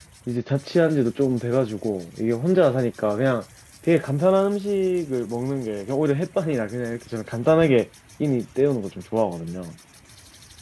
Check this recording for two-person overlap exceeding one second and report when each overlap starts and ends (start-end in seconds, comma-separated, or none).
none